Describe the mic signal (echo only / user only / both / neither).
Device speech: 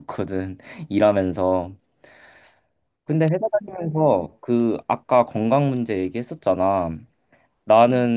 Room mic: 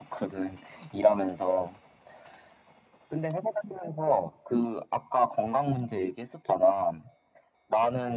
echo only